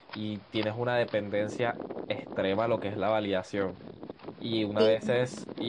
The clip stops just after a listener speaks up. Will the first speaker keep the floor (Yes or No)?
Yes